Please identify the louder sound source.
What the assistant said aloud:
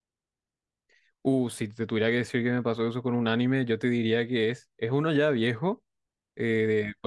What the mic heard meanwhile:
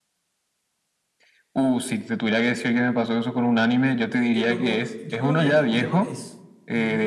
echo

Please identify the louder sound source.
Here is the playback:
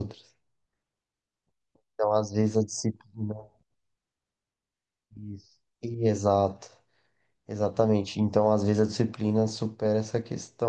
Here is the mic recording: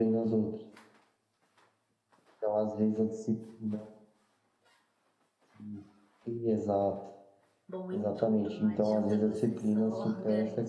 echo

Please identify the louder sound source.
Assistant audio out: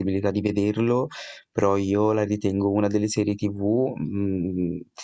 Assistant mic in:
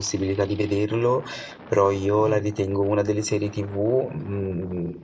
echo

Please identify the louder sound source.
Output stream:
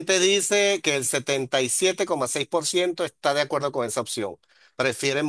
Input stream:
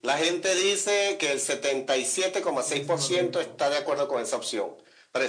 echo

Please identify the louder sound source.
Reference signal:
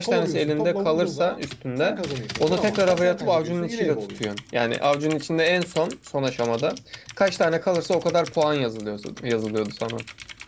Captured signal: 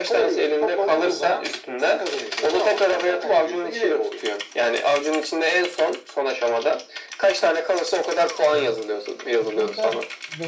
echo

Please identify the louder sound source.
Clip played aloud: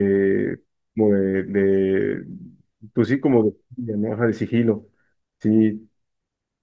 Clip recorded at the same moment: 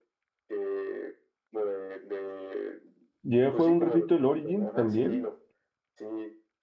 user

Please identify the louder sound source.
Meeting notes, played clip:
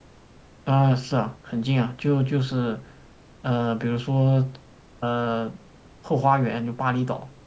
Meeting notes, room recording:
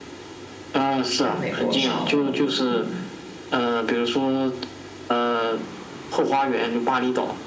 echo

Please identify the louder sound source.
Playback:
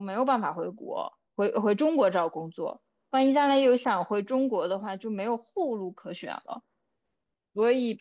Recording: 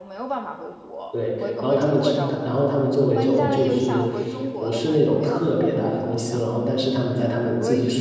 user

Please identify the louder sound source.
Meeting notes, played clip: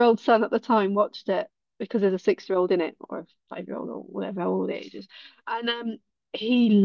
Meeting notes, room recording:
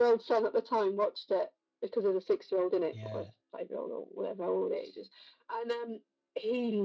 echo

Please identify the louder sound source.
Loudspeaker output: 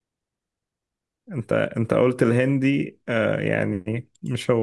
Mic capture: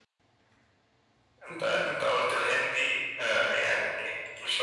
echo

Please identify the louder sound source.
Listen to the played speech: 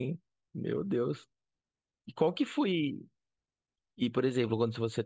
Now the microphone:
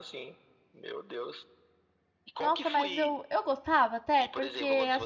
user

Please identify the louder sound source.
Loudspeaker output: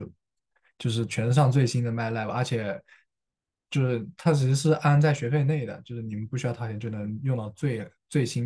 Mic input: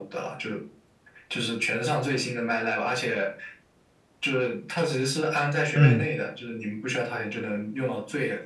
user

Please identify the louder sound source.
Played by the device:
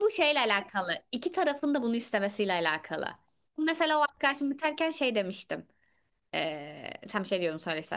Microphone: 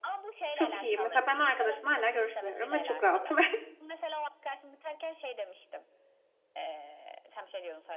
user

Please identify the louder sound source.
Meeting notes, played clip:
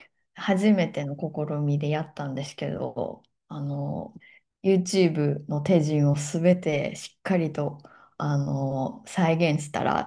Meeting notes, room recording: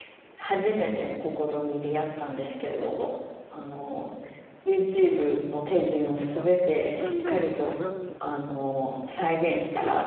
echo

